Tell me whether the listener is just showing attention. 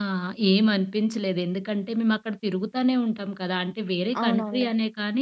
Yes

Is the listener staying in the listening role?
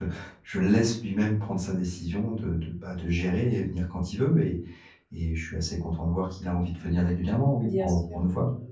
No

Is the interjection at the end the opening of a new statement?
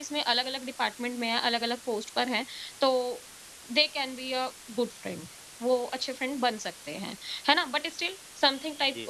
No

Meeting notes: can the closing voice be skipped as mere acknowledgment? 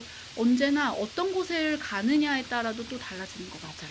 No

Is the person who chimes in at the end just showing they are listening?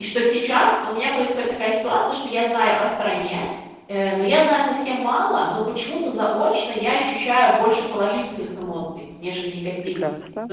Yes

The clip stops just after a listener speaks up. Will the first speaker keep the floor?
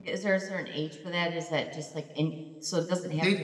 No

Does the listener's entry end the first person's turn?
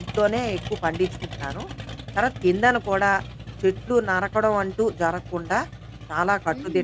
Yes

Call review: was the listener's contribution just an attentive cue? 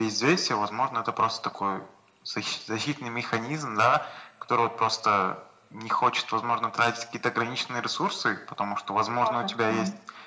Yes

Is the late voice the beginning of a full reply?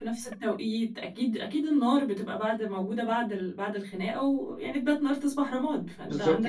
Yes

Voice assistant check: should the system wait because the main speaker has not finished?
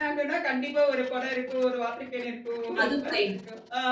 Yes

